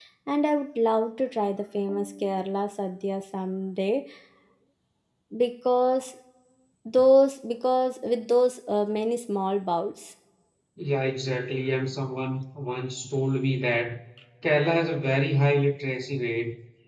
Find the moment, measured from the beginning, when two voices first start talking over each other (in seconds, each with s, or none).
none